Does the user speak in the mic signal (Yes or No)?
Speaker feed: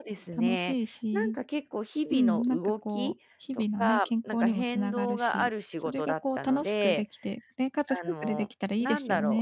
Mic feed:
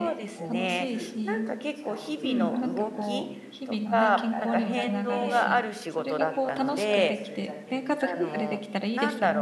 Yes